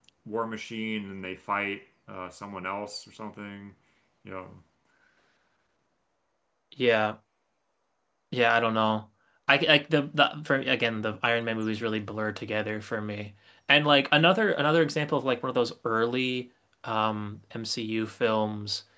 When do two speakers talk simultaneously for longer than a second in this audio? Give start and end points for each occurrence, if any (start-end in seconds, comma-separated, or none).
none